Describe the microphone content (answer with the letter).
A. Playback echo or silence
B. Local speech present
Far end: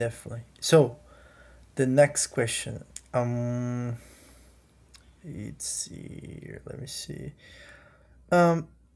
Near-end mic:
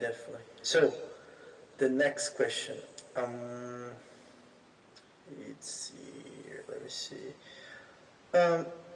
A